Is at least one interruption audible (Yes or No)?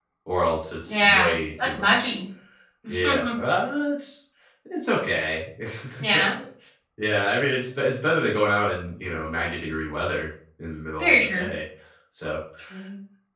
Yes